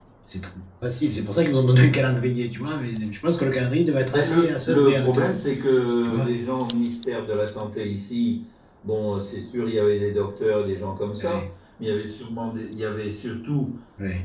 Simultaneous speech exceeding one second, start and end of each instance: 4.1-5.4

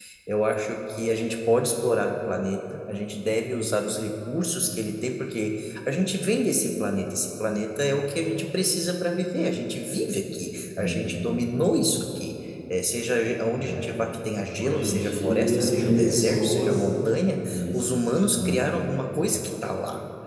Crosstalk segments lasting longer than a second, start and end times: 14.6-16.9

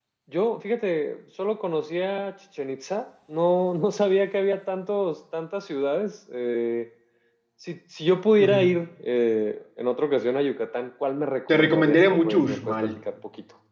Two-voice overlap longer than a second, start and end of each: 11.5-12.7

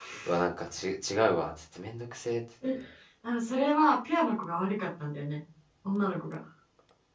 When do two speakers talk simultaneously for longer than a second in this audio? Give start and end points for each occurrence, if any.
none

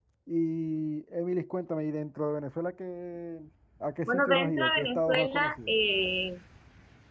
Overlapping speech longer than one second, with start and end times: 4.1-5.7

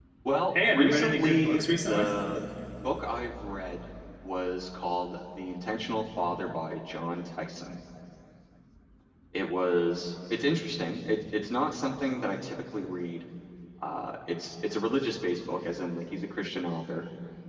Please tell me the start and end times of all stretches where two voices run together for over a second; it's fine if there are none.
0.5-2.1

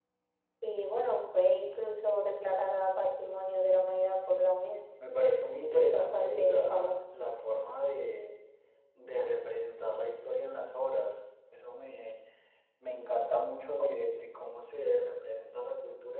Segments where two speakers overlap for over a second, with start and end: 5.6-7.0

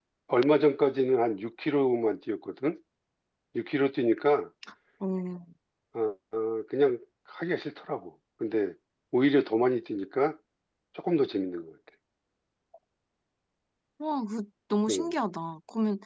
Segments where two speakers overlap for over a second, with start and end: none

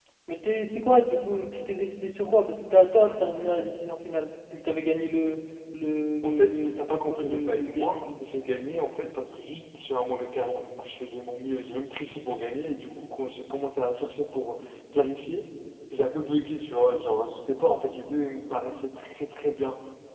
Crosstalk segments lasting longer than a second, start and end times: 6.2-8.2

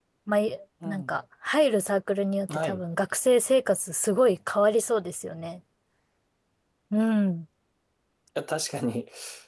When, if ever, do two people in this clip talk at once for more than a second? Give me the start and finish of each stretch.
none

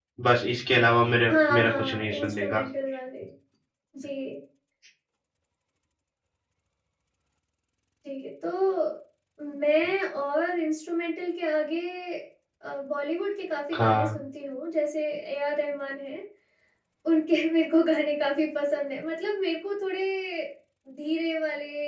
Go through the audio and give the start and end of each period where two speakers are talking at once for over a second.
1.3-2.6

